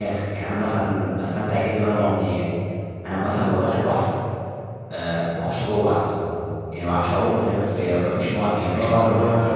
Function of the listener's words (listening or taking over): taking over